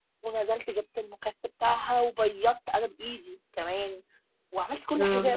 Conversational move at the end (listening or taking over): listening